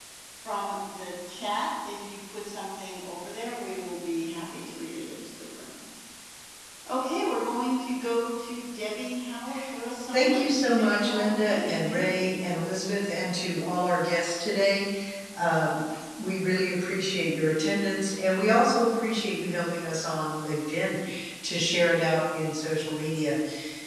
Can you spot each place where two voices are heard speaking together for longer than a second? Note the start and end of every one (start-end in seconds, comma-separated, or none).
10.1-12.2